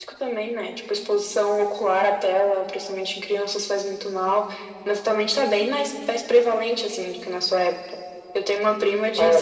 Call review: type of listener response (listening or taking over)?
listening